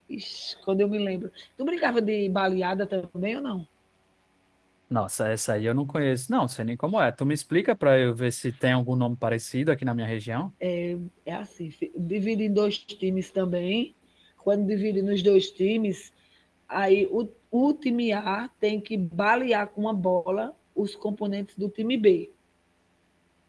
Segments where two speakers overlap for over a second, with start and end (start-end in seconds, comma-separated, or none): none